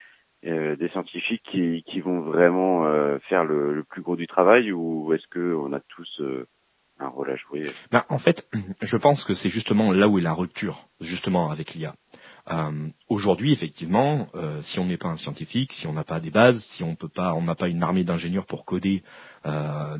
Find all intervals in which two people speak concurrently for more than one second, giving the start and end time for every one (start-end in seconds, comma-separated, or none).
none